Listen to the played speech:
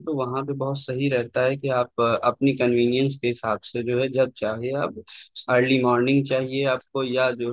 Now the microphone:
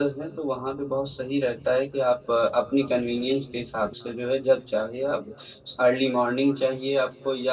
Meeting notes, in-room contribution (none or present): none